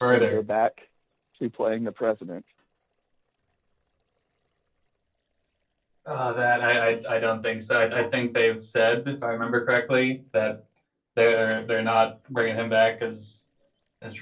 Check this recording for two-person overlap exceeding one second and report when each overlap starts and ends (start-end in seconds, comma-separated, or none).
none